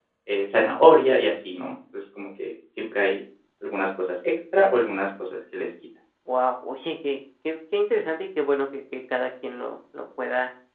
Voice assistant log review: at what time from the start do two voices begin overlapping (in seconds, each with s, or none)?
none